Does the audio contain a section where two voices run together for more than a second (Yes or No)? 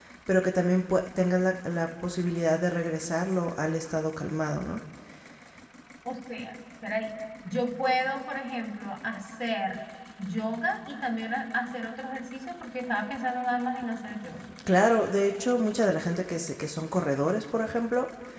No